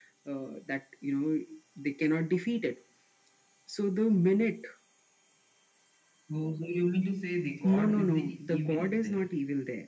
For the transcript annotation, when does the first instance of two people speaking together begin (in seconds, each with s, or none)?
7.6 s